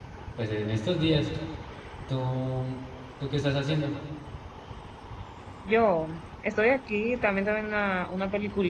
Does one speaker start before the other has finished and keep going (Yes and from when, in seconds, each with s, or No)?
No